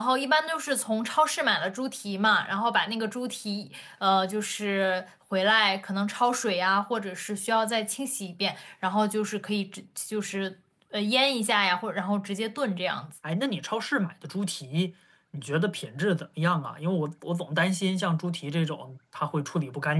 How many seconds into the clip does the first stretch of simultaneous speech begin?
none

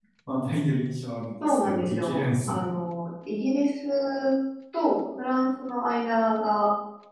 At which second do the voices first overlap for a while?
1 s

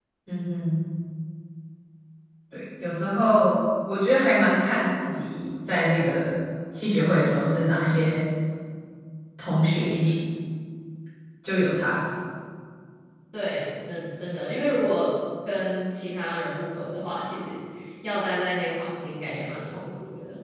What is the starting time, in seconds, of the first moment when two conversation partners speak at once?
none

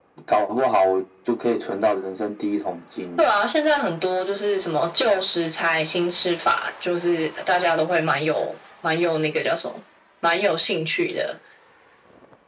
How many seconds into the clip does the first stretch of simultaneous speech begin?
none

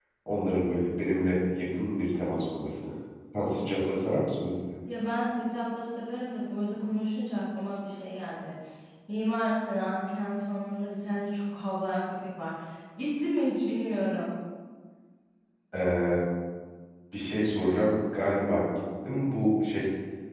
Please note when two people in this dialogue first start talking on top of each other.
none

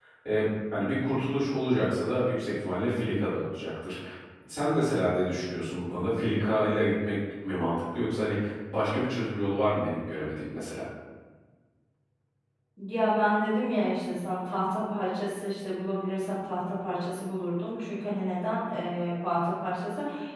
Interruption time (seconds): none

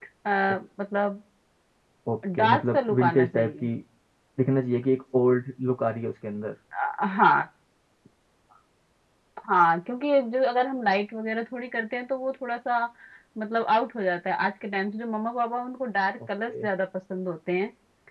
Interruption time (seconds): 2 s

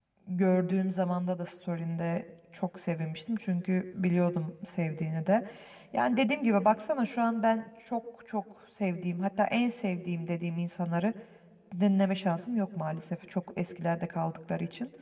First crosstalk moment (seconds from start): none

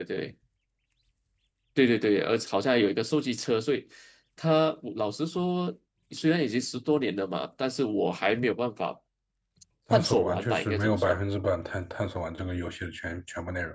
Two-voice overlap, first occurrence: 10 s

